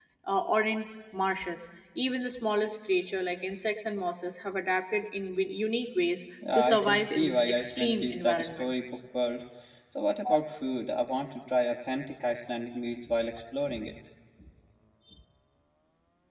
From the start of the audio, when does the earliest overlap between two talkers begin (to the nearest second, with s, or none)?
6 s